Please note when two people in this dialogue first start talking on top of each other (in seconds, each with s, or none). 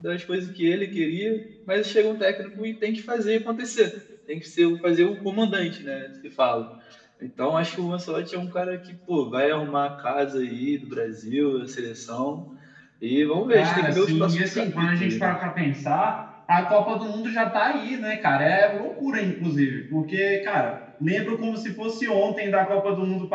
13.5 s